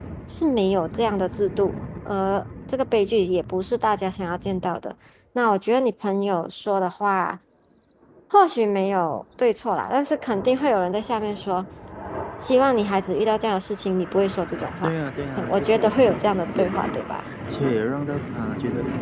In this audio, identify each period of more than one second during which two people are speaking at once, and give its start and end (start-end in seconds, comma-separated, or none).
15.4-17.1